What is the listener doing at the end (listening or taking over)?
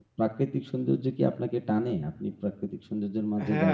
taking over